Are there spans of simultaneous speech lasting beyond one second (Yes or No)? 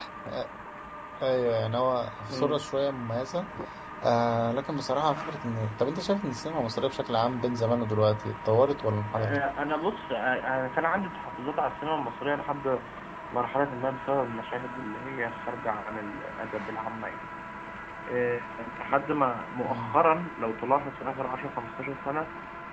No